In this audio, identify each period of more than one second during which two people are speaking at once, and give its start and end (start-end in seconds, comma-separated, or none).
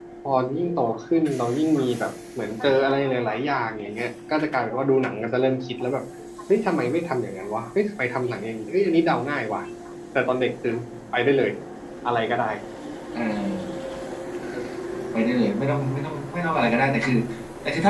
none